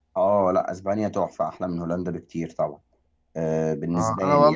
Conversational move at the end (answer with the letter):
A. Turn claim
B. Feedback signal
A